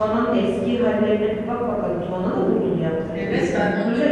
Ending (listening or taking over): taking over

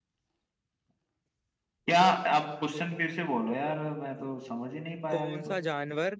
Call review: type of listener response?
taking over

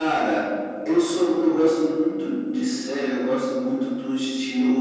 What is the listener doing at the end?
listening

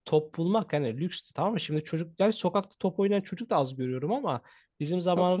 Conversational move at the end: listening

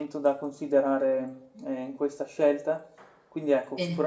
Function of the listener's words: listening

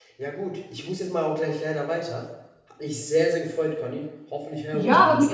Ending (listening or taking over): taking over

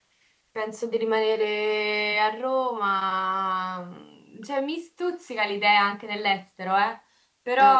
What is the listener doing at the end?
listening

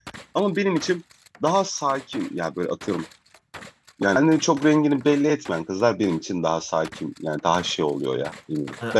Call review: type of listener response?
taking over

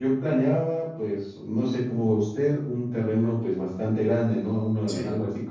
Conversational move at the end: listening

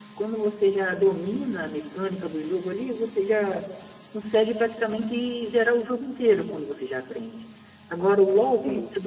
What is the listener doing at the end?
listening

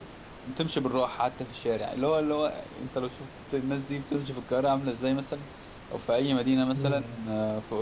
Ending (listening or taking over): listening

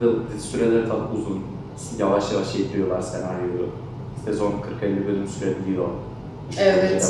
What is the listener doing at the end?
taking over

